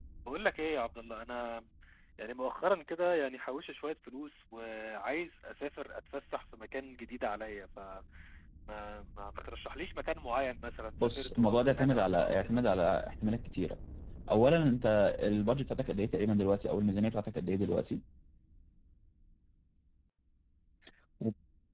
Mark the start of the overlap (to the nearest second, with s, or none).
11 s